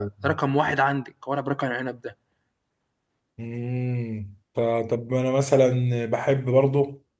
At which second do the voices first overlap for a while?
none

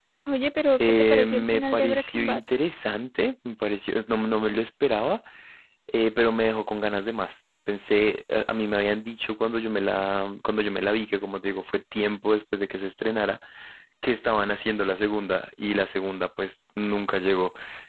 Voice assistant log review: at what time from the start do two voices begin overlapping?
0.8 s

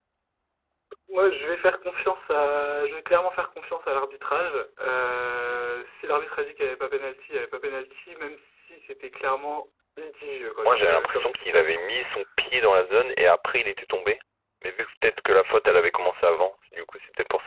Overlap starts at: 10.7 s

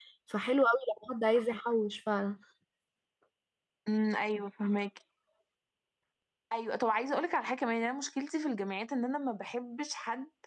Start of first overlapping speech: none

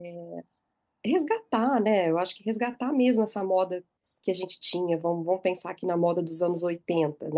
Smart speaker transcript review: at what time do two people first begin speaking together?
none

